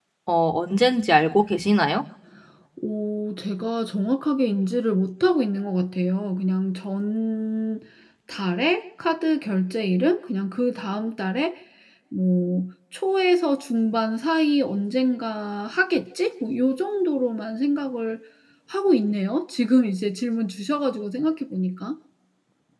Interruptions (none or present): none